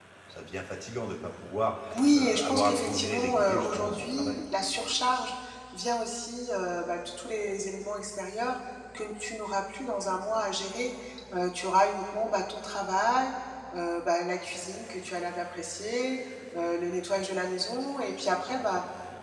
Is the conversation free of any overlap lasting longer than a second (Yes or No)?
No